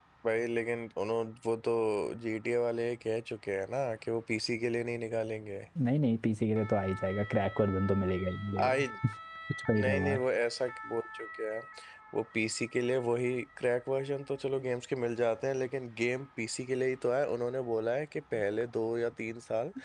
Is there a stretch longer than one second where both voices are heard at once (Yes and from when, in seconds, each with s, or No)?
No